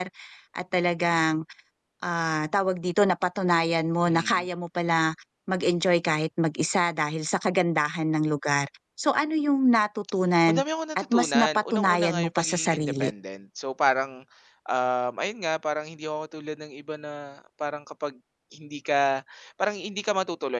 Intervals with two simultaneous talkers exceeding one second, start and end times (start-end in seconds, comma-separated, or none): 11.0-13.1